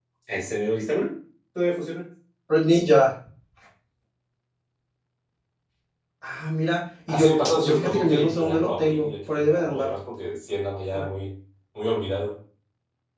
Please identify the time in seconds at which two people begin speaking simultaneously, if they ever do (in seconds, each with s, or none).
7.1 s